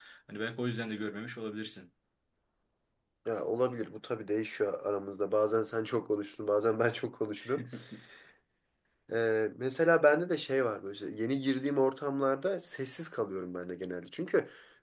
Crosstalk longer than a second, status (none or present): none